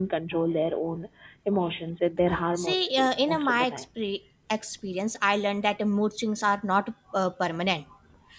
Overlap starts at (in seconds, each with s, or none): 2.6 s